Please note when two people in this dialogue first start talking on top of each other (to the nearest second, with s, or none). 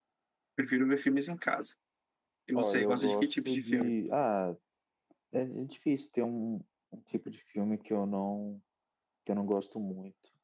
3 s